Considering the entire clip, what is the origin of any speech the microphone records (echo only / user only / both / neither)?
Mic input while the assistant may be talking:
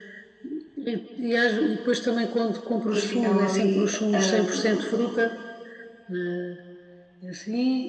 both